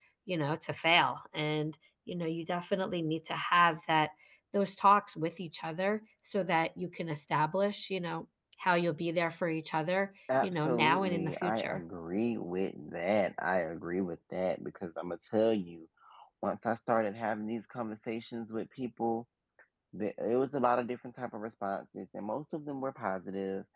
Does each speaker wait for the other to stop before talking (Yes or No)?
No